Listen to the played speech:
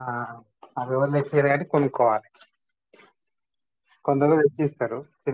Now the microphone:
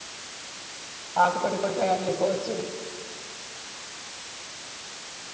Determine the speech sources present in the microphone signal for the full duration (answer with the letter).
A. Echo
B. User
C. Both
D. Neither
B